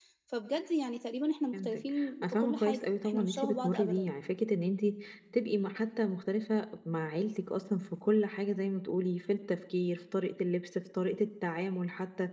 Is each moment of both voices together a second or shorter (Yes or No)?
No